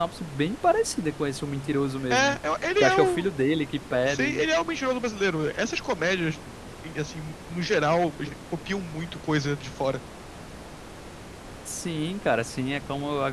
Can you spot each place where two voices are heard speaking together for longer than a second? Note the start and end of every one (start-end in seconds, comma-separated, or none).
none